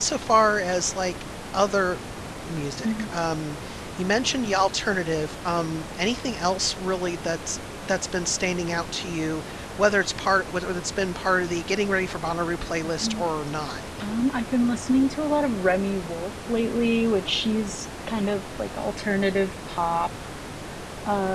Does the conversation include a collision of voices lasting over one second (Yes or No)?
No